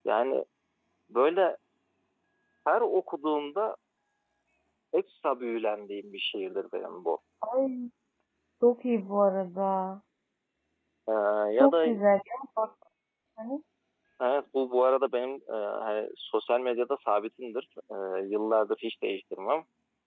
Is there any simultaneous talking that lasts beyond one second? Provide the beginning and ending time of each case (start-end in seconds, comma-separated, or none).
none